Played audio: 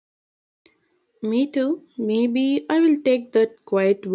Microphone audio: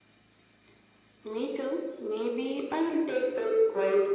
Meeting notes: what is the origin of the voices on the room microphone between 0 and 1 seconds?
neither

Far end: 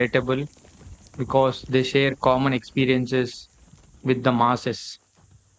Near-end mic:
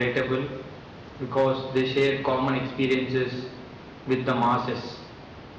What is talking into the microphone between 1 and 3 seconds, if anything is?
echo only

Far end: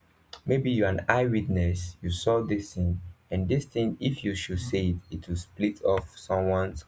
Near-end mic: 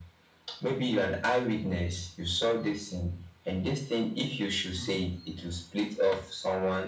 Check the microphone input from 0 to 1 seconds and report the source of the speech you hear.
echo only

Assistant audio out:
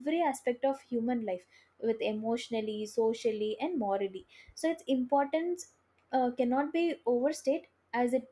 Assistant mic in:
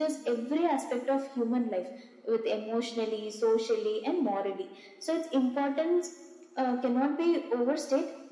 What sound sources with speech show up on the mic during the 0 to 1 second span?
echo only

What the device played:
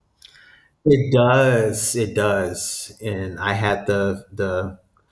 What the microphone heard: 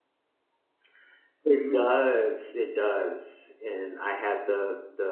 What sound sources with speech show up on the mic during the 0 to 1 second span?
neither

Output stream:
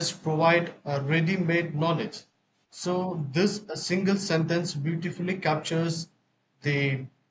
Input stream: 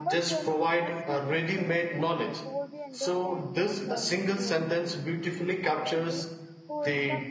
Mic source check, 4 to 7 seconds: both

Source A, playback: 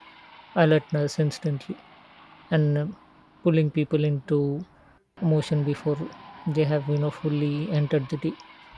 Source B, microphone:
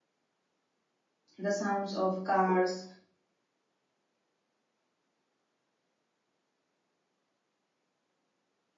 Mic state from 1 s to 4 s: user only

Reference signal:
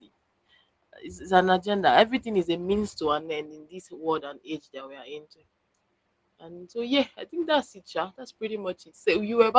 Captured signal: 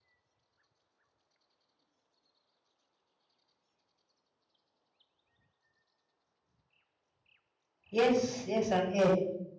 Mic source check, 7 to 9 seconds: user only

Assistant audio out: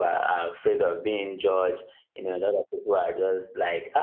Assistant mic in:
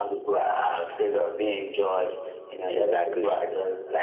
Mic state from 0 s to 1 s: echo only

